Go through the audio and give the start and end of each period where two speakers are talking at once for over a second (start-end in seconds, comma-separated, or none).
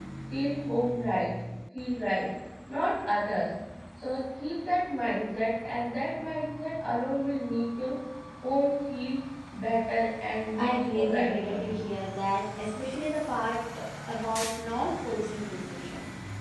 10.5-11.8